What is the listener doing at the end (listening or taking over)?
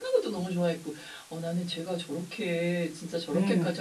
listening